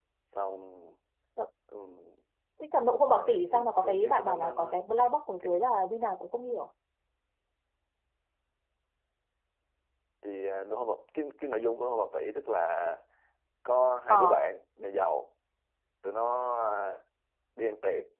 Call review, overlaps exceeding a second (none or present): present